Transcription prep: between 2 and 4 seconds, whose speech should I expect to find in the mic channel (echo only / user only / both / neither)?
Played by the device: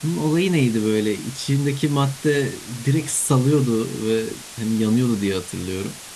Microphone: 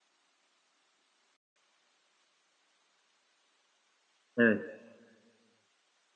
neither